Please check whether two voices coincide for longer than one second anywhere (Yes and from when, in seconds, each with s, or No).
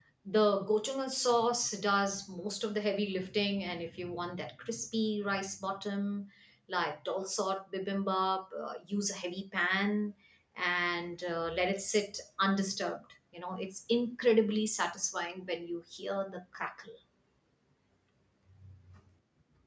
No